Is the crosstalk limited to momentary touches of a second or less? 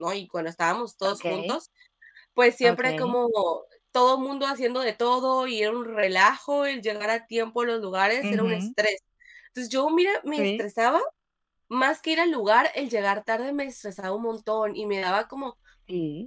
Yes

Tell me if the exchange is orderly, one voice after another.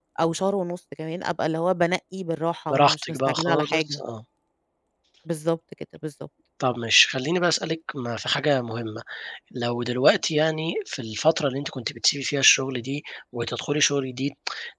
No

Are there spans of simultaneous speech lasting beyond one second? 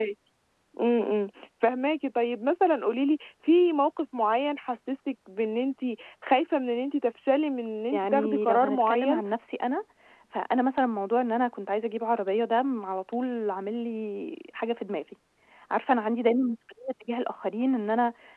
Yes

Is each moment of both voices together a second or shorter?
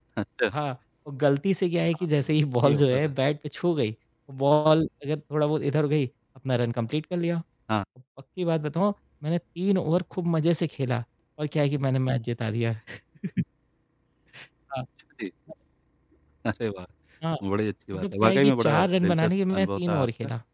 No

